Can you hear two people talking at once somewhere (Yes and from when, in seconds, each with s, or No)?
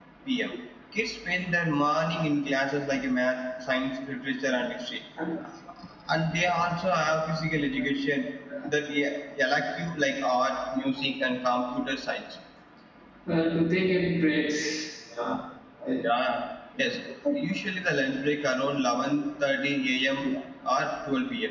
No